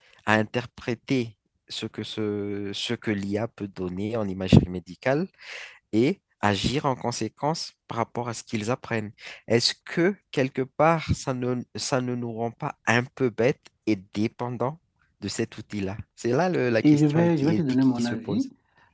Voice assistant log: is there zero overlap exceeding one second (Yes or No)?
No